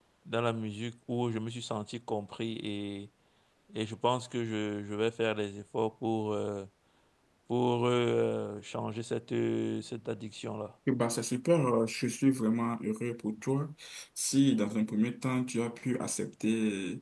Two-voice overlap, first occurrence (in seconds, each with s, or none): none